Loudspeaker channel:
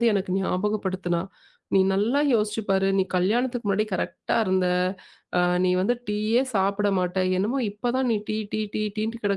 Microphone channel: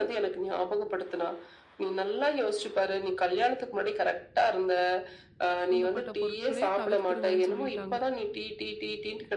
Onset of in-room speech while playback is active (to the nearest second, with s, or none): 6 s